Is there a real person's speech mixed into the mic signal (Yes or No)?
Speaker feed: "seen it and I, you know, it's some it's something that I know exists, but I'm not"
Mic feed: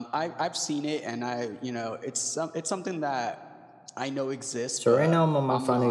Yes